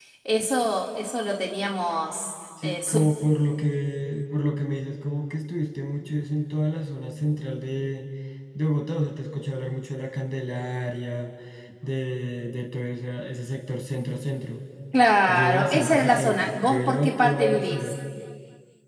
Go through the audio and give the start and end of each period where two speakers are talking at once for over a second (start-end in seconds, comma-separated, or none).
15.3-17.9